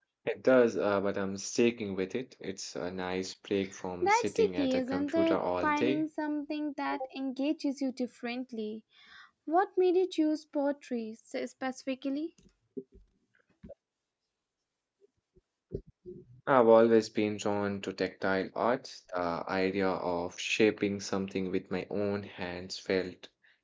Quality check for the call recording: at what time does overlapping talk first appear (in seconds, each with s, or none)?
4.0 s